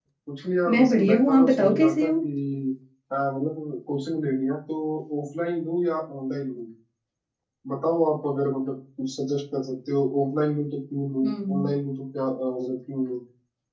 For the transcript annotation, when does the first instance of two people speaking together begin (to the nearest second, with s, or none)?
1 s